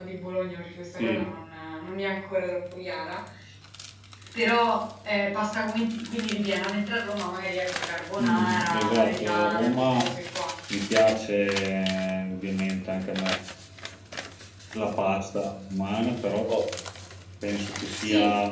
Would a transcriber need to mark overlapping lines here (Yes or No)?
Yes